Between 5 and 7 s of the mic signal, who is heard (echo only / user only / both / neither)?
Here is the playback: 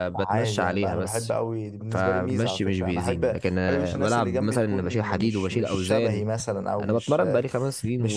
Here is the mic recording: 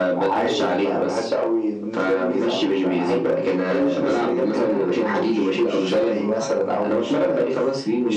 both